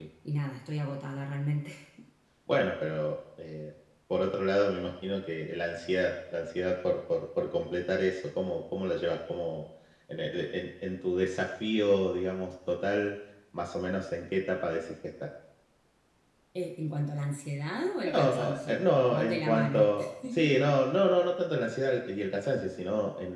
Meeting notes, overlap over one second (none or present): present